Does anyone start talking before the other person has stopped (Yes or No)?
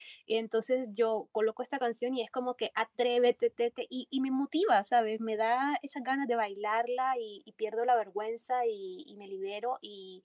No